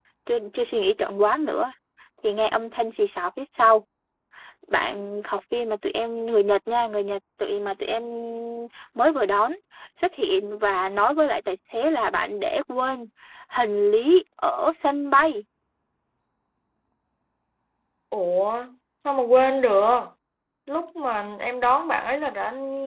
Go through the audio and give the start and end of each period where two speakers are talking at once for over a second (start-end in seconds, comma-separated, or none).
none